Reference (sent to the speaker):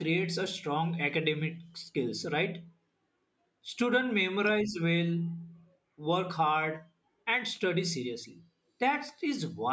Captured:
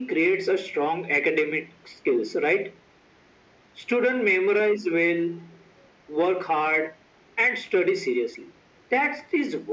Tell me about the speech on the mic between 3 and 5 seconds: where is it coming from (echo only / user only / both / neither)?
echo only